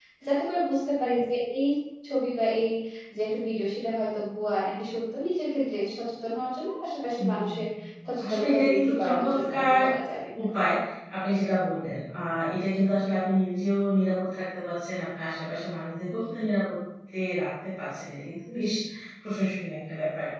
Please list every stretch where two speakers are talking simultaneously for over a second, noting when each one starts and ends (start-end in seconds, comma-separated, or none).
8.2-9.8